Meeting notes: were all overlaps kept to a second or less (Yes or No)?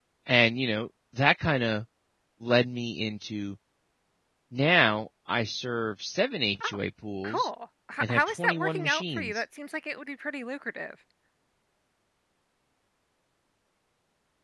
No